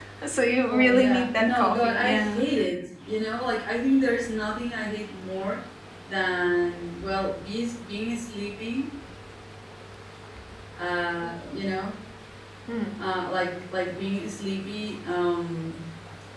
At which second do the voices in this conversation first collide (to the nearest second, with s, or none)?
1 s